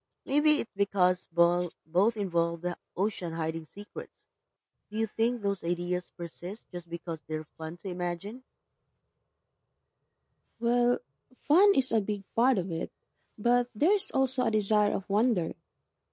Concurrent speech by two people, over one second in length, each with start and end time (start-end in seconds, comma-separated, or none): none